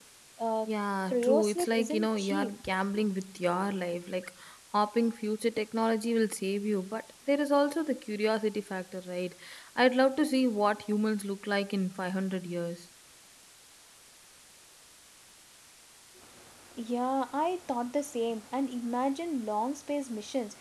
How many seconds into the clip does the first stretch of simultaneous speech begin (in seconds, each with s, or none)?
1.1 s